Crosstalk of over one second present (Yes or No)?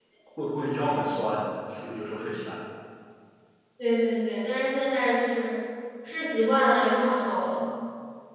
No